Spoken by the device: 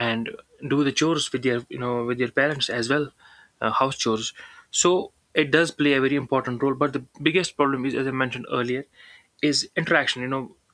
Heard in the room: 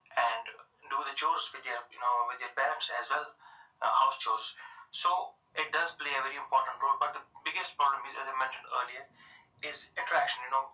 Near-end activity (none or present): none